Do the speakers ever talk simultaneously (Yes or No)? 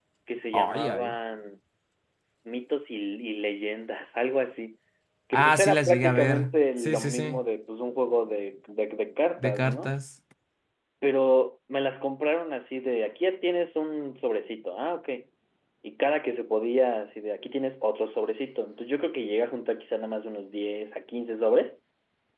Yes